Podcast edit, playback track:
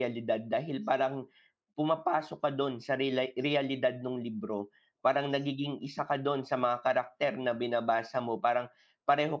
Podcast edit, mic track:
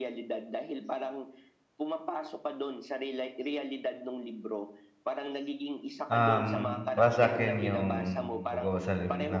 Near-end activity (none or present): present